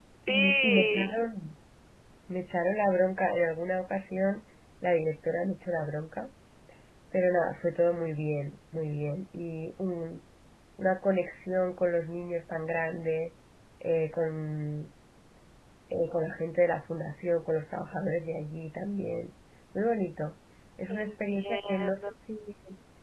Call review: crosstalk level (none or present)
present